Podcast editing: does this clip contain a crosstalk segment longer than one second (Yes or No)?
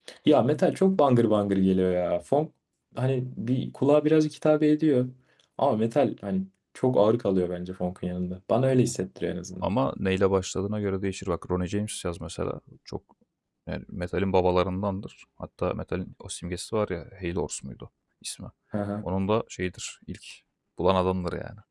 No